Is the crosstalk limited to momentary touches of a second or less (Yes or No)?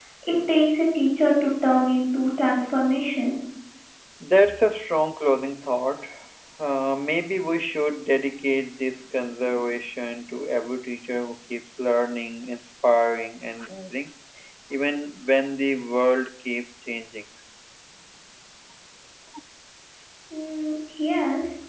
Yes